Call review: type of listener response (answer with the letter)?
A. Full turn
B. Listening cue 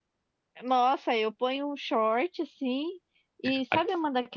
B